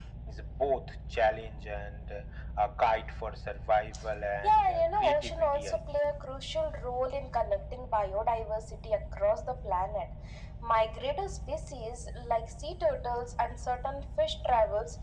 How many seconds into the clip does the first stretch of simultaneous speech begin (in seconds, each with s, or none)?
4.4 s